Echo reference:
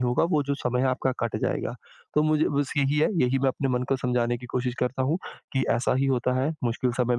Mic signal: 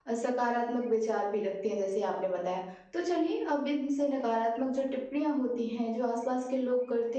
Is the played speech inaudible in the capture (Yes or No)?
Yes